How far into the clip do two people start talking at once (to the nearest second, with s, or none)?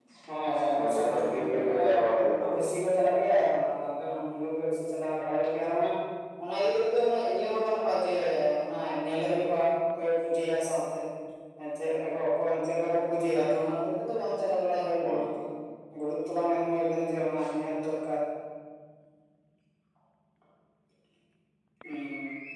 1 s